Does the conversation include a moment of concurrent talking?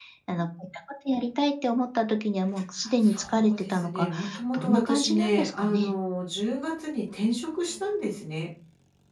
Yes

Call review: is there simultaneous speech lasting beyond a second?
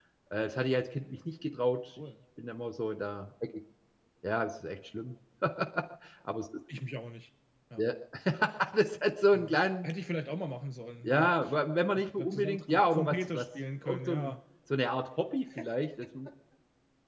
Yes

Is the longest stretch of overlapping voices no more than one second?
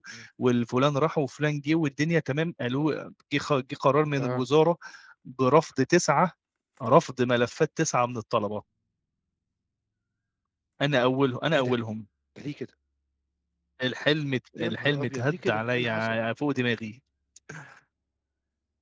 No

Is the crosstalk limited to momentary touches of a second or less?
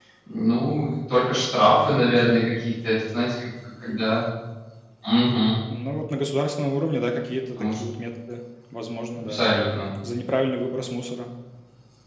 Yes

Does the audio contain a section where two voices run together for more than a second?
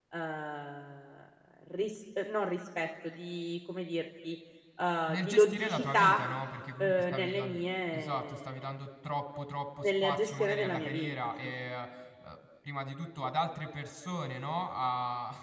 Yes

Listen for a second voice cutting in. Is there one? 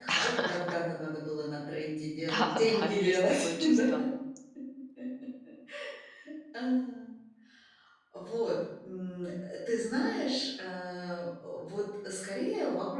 Yes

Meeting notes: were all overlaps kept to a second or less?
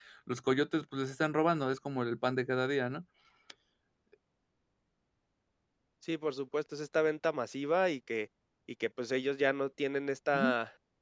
Yes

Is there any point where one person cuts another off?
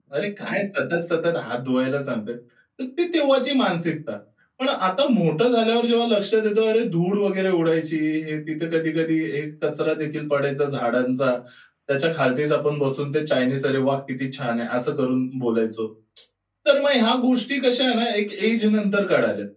No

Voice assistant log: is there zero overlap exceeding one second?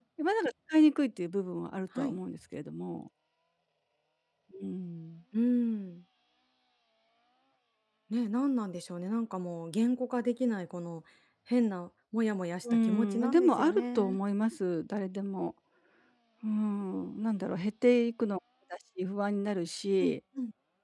No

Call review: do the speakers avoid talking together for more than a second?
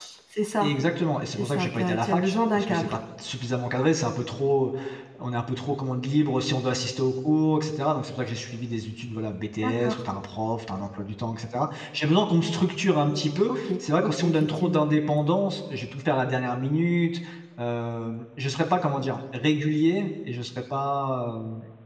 No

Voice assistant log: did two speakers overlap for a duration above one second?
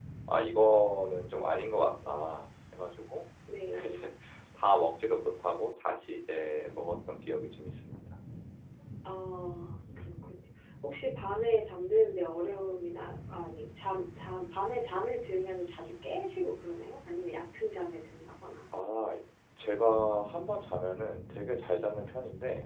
No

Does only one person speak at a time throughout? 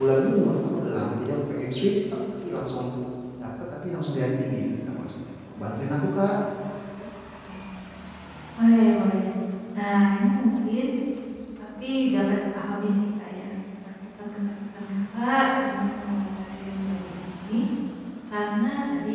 Yes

